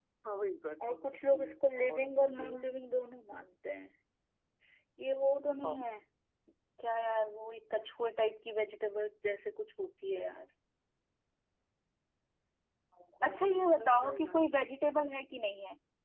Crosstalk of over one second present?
Yes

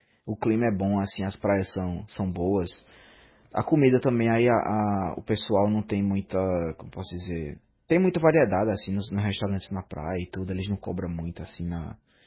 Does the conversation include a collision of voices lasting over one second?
No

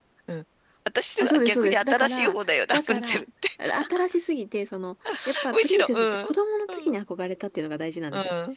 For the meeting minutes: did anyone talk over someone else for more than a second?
Yes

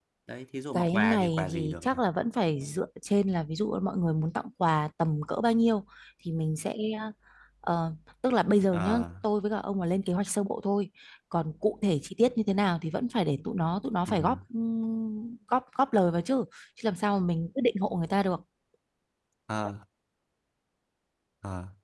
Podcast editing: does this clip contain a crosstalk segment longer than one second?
Yes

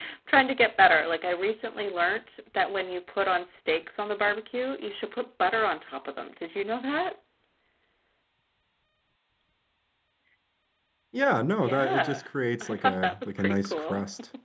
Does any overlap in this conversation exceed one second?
Yes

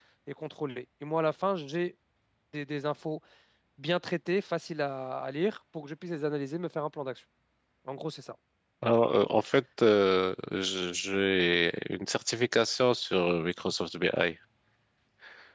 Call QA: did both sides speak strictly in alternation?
Yes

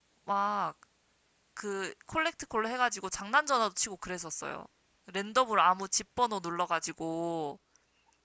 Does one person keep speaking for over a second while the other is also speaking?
No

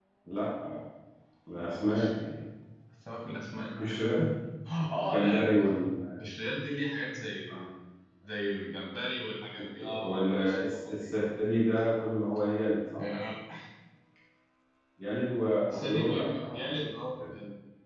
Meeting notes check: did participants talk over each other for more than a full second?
Yes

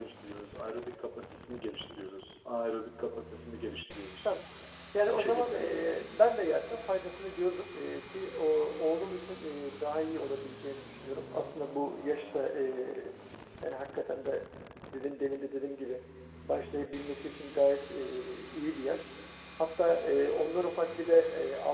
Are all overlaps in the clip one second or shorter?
Yes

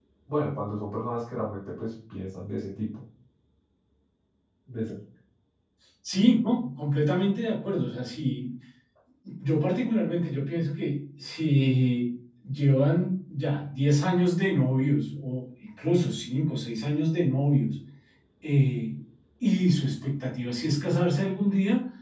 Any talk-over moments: No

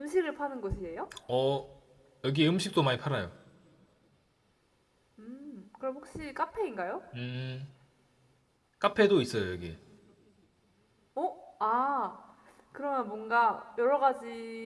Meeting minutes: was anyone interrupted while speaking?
No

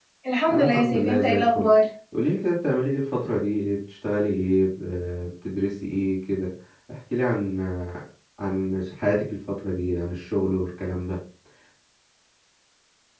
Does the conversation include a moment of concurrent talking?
Yes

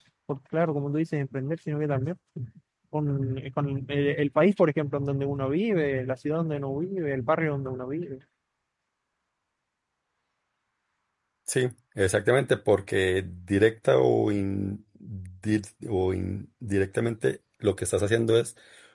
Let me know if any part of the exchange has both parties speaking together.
No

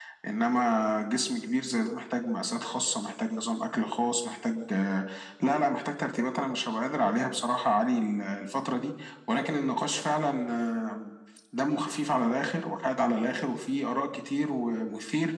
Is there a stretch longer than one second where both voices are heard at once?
No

